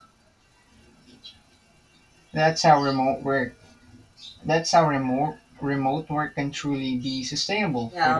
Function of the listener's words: taking over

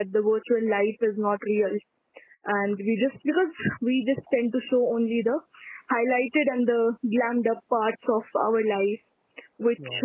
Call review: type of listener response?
listening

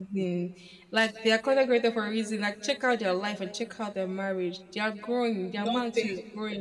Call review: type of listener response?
listening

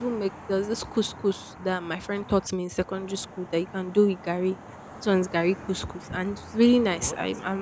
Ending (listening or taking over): listening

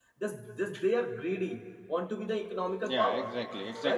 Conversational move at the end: taking over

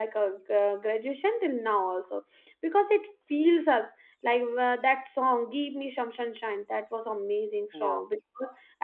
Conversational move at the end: listening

